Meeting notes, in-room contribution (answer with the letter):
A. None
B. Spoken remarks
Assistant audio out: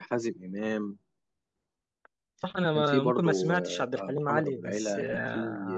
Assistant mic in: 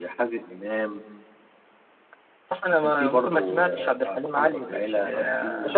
B